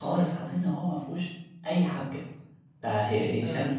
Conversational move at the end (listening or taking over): listening